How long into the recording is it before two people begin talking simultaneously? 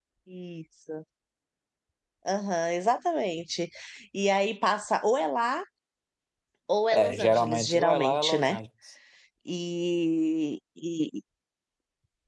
6.9 s

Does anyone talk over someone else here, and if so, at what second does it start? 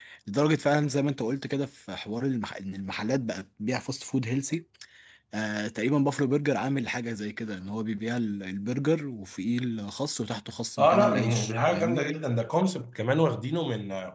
10.8 s

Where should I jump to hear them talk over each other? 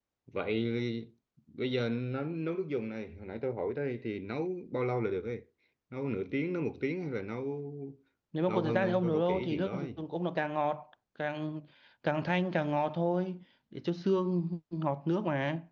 8.5 s

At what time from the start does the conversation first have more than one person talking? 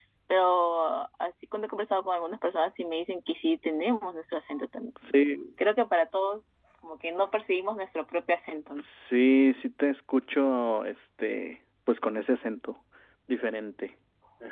none

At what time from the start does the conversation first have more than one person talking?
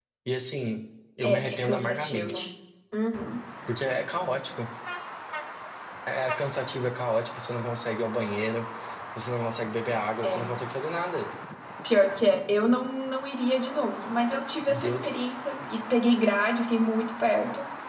1.2 s

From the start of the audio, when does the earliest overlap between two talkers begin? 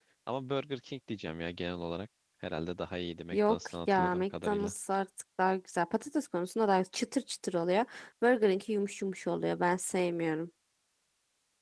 3.3 s

